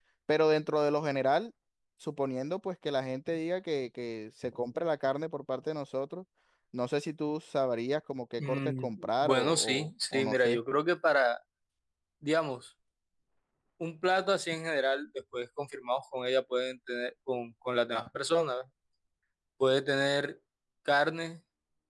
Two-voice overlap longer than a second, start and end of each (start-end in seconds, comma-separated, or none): 8.4-10.6